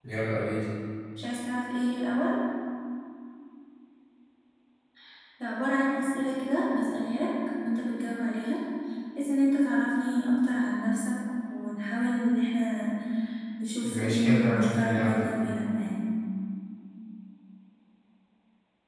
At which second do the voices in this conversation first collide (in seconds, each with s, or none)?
13.8 s